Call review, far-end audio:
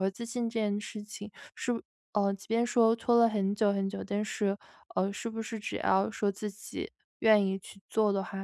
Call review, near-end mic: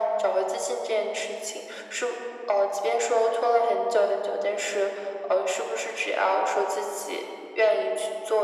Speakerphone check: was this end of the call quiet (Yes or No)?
Yes